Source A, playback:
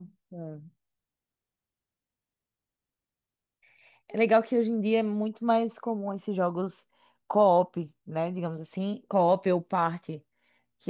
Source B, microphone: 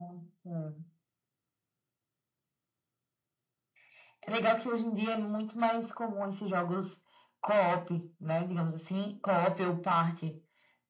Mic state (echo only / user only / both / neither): echo only